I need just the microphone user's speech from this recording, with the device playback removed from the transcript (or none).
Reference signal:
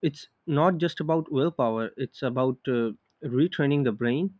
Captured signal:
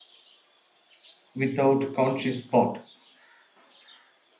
without conscious thought.